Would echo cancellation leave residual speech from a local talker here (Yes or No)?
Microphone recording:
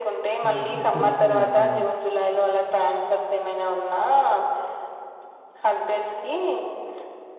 Yes